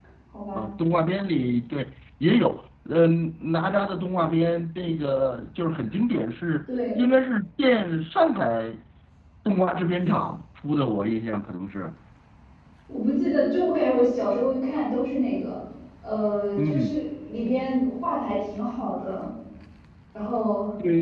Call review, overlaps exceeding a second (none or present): none